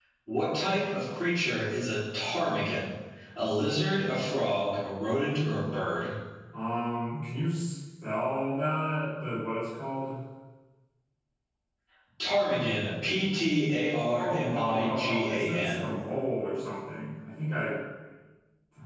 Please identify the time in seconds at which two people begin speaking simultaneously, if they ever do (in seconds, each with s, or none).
14.1 s